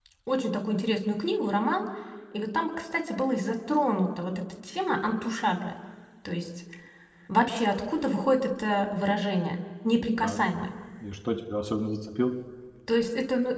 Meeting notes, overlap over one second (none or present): none